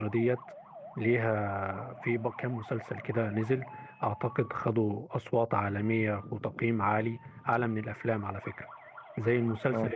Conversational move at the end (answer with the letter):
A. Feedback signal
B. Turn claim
A